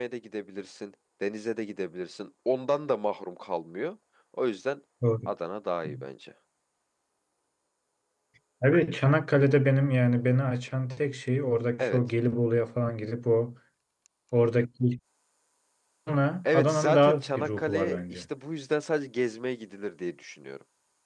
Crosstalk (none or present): present